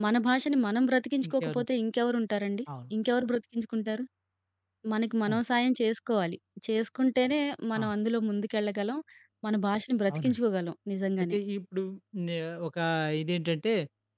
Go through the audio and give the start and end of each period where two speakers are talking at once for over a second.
none

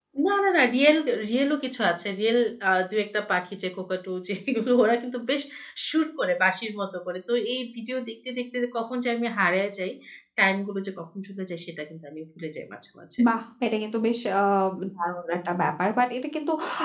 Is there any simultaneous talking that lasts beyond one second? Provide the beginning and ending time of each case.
none

